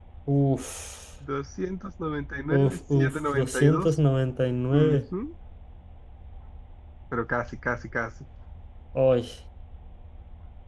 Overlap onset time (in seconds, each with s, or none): 2.5 s